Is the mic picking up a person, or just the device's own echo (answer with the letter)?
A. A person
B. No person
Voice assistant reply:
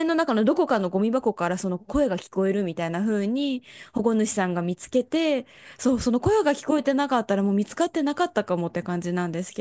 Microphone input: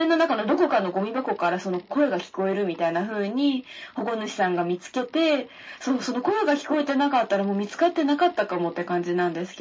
B